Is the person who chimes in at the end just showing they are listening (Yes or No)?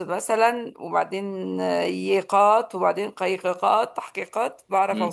No